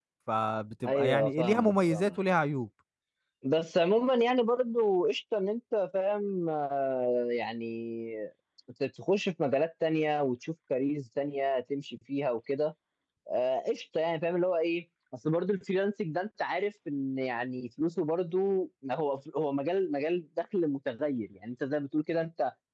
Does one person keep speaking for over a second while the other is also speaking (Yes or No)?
Yes